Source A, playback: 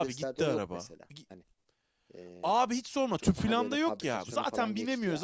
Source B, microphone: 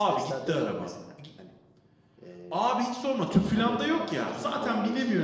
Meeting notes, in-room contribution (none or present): none